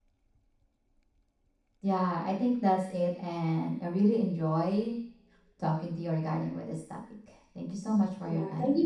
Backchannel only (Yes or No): No